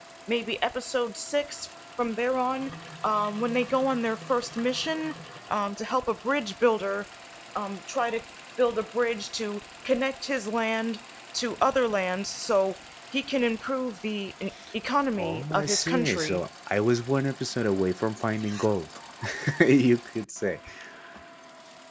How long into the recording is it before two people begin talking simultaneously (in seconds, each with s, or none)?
15.2 s